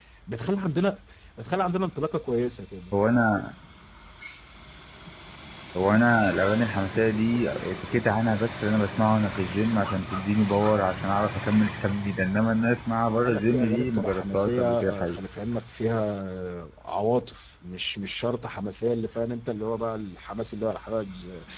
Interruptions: present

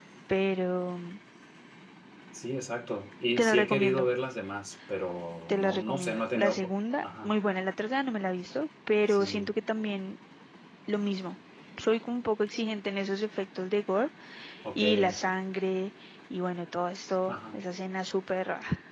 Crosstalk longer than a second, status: present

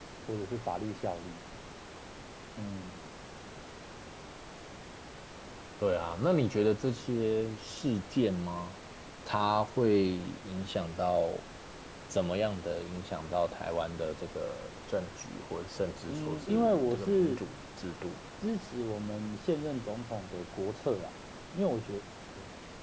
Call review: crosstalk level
present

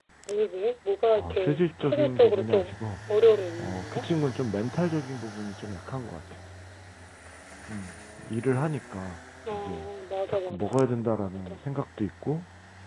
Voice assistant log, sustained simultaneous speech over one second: present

